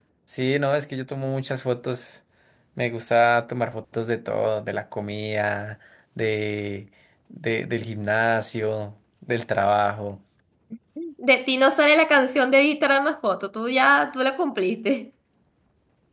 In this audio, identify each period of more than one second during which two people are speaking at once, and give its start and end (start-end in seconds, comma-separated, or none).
none